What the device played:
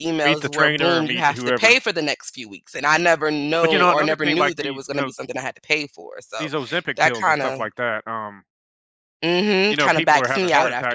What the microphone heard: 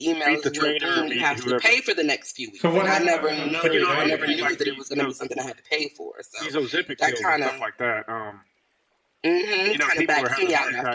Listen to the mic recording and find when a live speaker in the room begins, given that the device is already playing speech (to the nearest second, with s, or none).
3 s